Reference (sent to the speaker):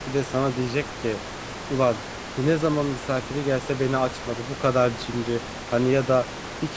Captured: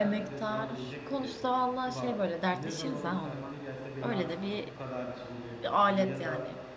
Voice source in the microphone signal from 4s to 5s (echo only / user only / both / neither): both